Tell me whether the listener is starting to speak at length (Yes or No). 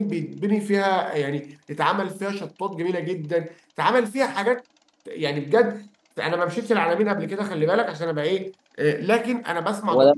No